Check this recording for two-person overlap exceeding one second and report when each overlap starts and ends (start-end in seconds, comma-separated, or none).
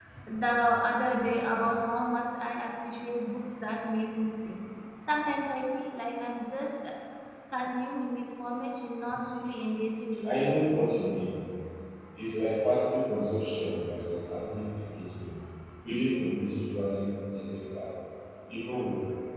none